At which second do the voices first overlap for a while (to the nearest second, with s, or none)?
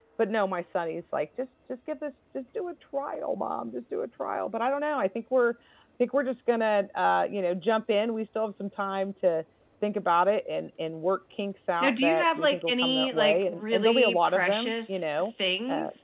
12 s